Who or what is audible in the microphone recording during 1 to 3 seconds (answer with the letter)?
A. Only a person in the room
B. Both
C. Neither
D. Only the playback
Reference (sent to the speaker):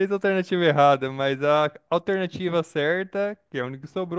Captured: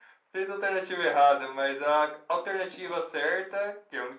D